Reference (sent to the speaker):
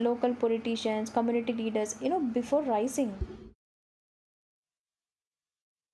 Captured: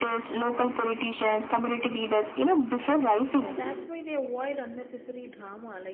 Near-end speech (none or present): present